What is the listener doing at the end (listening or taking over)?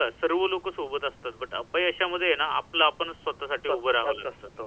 taking over